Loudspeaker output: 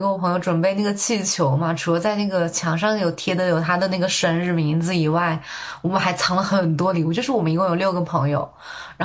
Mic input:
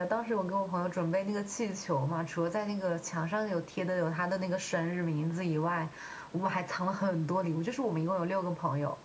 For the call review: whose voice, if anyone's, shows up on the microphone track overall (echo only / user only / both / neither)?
echo only